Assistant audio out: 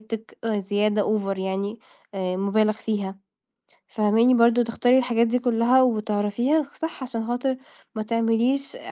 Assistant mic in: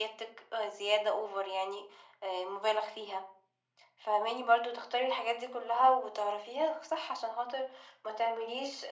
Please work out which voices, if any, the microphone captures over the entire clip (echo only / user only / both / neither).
echo only